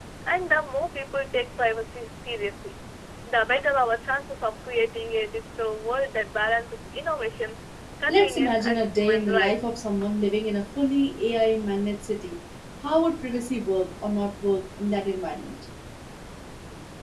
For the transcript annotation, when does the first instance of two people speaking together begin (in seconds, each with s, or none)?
8.1 s